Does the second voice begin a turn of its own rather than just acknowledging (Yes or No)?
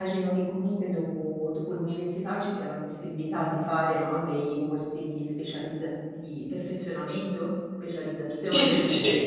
Yes